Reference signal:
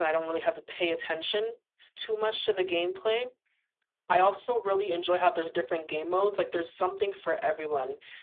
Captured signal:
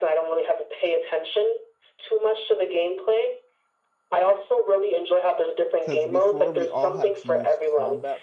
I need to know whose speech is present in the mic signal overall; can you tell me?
both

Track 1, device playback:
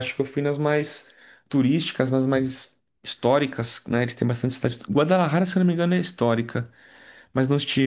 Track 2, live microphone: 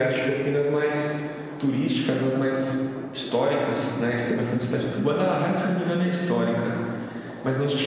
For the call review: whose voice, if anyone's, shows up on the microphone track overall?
echo only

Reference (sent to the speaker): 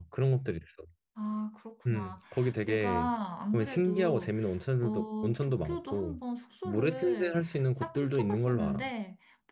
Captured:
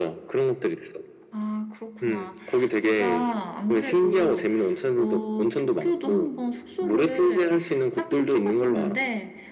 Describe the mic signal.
both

